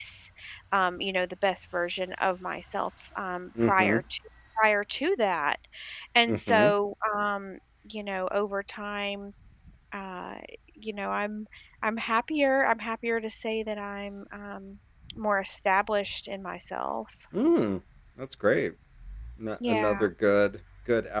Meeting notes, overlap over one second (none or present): none